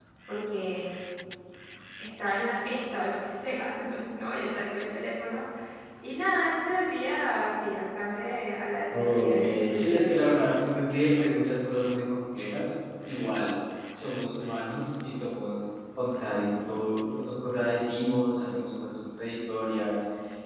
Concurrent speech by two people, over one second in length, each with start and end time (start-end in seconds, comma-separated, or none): 8.9-10.1